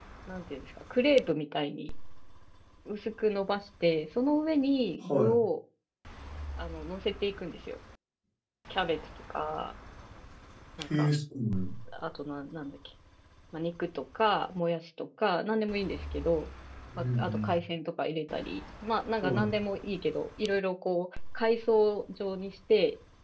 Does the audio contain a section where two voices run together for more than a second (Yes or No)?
No